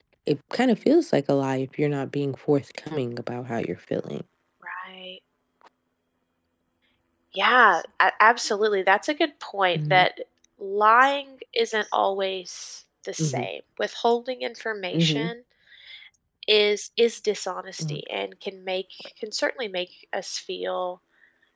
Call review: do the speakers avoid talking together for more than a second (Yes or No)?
Yes